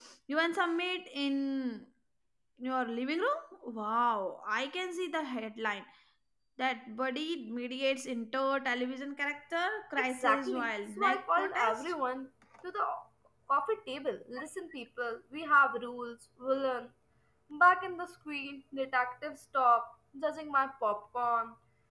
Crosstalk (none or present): present